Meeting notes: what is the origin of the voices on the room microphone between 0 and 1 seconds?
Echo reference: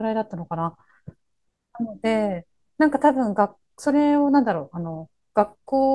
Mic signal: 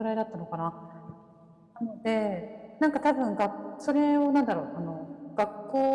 echo only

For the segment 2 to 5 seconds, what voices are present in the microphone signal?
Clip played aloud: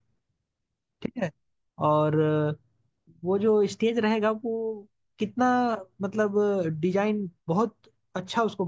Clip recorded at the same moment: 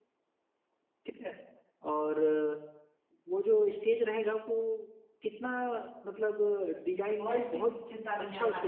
echo only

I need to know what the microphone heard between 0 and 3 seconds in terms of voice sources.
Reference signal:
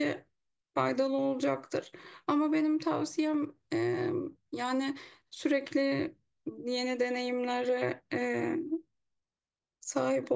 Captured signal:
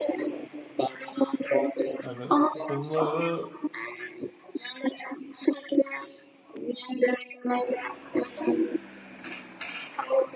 both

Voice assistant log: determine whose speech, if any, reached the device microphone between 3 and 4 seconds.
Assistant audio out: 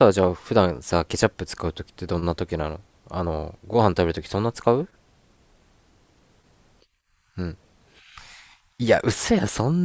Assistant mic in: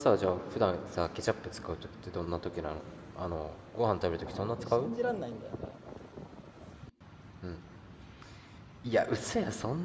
echo only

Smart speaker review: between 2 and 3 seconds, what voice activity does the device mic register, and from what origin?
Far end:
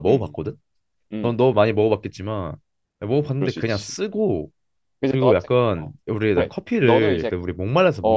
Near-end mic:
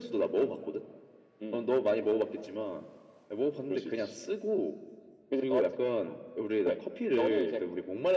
echo only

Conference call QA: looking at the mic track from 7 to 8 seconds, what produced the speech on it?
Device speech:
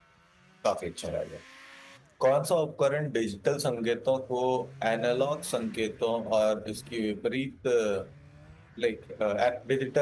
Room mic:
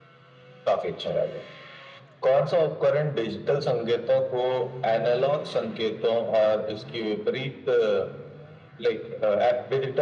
echo only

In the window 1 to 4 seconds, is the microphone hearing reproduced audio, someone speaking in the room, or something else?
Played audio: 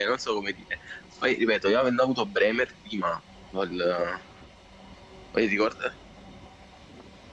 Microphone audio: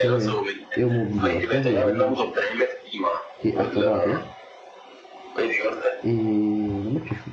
both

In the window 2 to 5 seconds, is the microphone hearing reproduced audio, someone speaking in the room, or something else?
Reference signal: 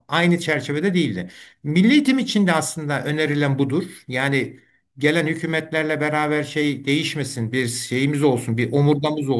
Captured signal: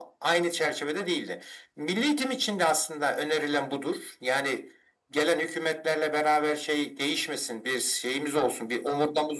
echo only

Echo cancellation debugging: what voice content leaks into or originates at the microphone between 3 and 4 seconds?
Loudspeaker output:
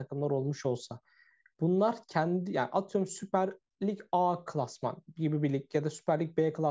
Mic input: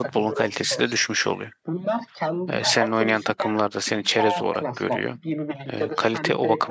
both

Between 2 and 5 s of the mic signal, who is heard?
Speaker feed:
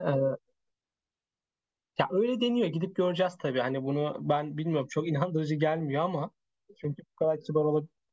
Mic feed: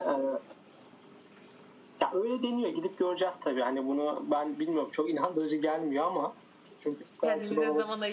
echo only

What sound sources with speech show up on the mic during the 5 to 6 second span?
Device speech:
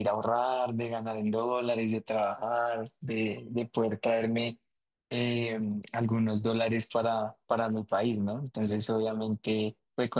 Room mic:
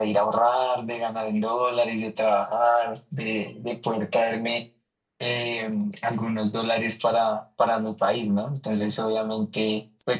echo only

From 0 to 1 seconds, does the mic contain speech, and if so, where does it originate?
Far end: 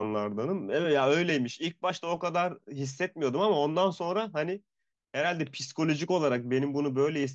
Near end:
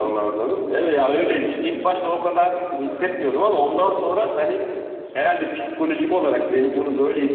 echo only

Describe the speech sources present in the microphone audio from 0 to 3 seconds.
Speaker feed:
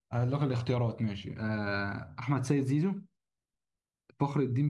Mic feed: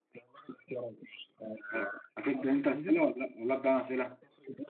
both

